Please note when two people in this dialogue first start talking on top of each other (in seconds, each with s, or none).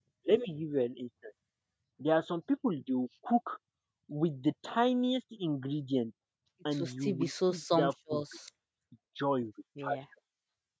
6.7 s